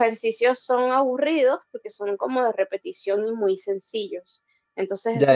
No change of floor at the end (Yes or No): No